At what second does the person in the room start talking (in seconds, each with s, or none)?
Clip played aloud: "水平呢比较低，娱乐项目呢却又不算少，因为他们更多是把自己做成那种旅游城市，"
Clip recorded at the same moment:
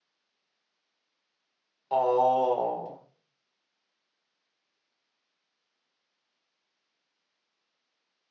1.9 s